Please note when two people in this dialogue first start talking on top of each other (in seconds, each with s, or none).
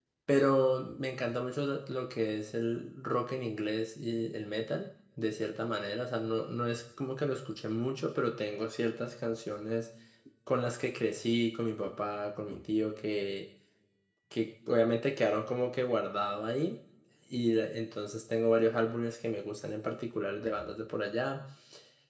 none